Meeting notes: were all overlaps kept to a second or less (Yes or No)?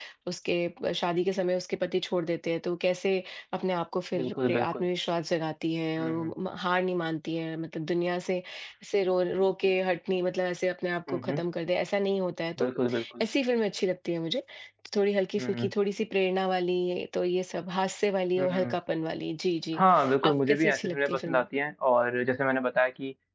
No